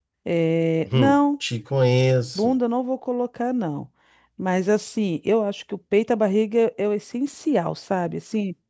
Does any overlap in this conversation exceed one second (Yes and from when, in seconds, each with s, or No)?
No